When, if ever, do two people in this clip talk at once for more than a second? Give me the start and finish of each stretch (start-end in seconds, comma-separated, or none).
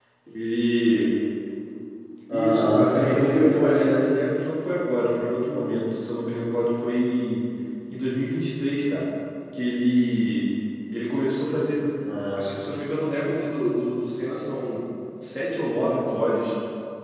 2.3-4.0